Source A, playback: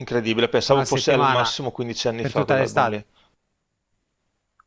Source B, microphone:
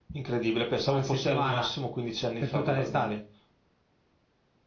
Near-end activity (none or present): none